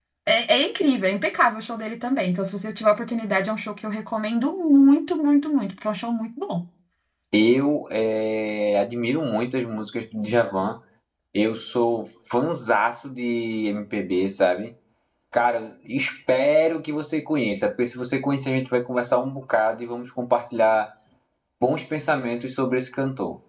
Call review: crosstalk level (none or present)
none